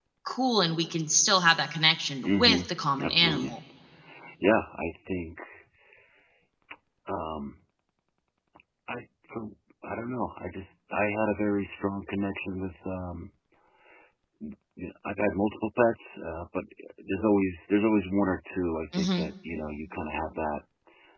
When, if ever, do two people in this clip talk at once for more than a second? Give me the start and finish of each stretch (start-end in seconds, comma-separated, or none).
none